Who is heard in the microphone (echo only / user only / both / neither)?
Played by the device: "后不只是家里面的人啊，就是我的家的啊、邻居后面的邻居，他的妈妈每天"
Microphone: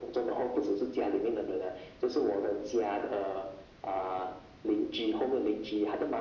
echo only